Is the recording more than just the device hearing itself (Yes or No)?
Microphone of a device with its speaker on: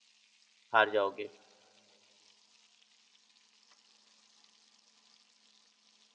Yes